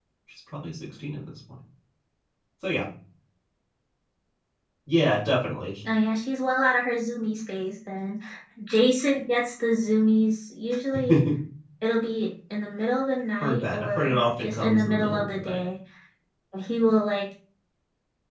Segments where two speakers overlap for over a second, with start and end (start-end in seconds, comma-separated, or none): 13.4-15.6